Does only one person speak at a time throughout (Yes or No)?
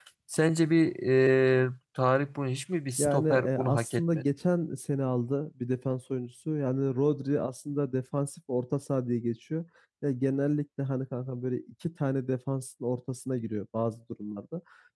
No